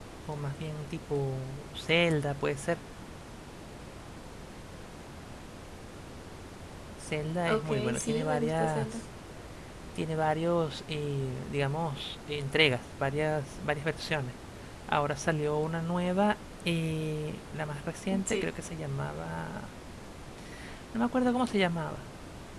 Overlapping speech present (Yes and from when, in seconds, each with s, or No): Yes, from 7.5 s